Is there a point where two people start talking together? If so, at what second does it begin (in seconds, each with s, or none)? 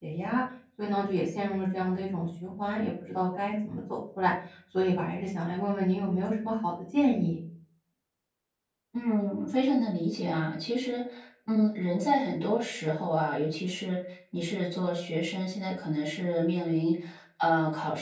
none